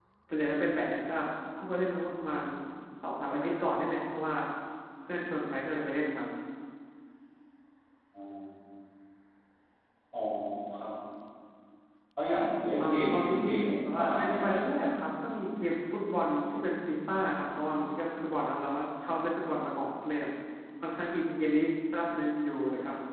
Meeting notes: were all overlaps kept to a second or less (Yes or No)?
No